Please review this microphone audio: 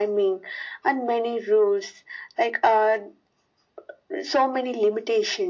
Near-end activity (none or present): none